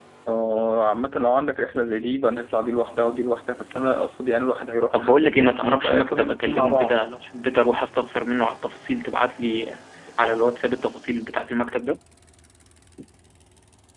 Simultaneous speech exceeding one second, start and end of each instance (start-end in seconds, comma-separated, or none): 4.9-7.1